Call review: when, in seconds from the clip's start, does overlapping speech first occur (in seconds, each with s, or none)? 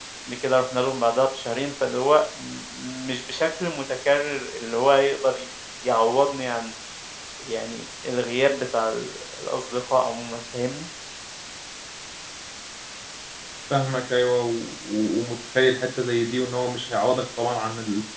none